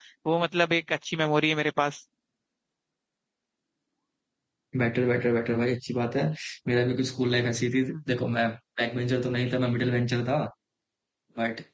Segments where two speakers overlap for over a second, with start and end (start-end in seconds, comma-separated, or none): none